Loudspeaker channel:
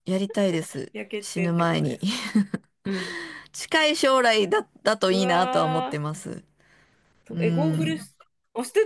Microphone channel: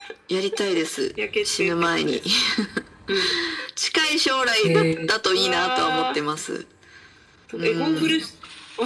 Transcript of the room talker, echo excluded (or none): へえ。